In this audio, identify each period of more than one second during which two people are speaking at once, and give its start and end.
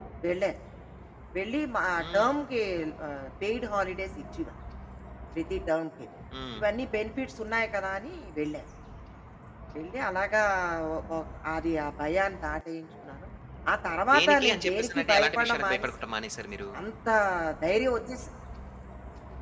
14.1-16.0

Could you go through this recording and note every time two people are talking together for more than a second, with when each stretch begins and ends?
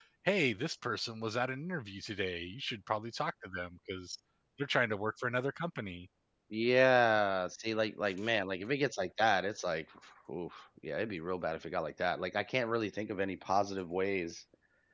none

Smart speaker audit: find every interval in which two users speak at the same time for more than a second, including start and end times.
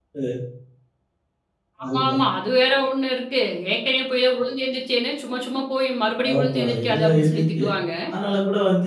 6.3-7.6

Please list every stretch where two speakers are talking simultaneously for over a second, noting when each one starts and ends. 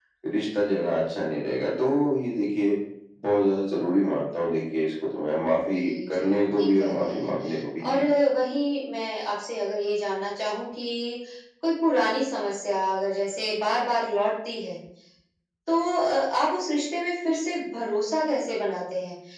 5.7-7.3

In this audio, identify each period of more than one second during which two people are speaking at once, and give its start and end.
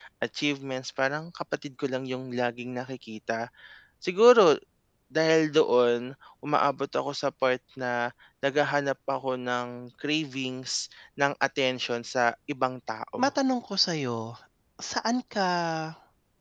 none

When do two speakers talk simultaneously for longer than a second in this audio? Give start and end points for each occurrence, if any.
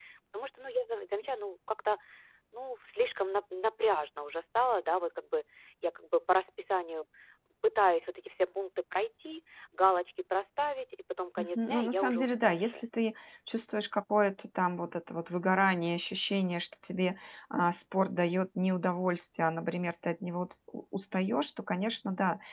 11.4-12.8

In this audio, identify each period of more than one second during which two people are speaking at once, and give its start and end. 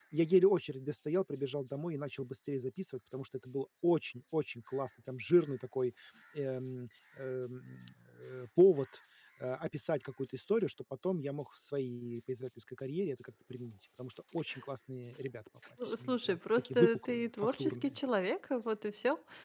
15.8-18.0

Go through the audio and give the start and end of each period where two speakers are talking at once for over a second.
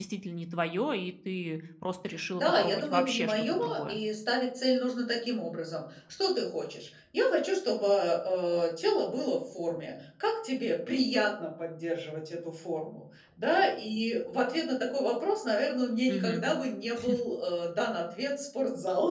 2.3-4.0

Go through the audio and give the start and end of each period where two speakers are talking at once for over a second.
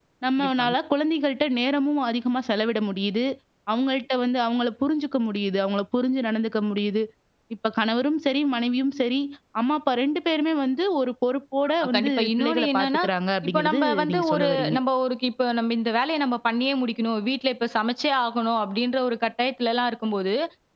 11.7-13.0, 13.5-14.8

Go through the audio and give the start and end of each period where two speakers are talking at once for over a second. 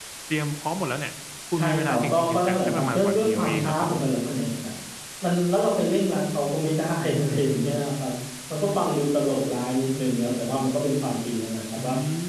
1.6-4.0

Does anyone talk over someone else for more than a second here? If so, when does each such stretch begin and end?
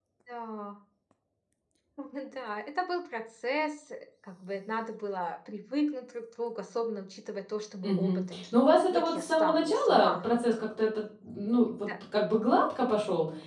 7.8-10.2

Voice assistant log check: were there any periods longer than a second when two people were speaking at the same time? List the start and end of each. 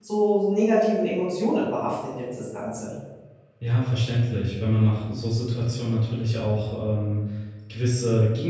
none

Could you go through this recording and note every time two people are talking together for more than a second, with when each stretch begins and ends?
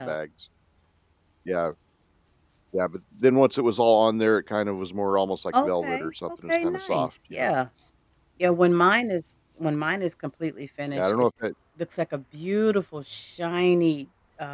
5.6-7.5

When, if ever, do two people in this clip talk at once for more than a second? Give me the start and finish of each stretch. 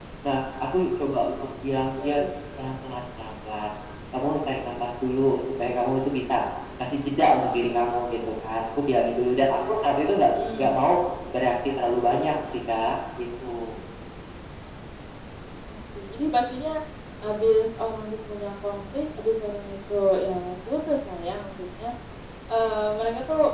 none

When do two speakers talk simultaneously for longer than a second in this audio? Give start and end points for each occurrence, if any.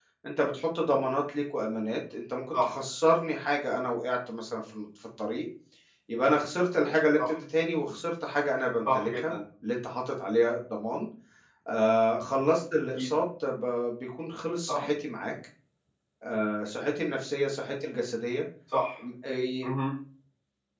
none

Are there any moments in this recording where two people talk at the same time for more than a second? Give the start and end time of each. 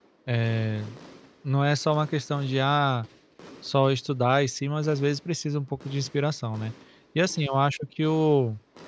none

